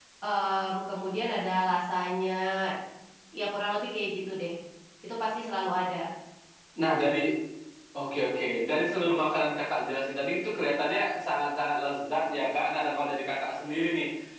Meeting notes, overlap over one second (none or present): none